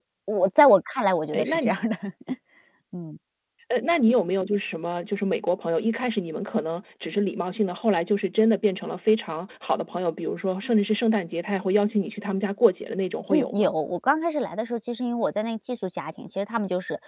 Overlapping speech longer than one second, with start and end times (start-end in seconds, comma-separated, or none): none